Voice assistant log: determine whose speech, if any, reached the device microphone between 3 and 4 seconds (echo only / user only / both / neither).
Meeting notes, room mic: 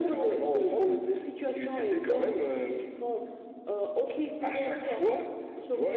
echo only